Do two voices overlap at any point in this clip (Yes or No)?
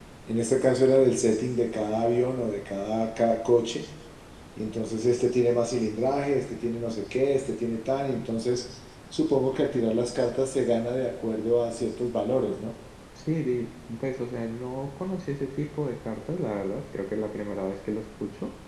No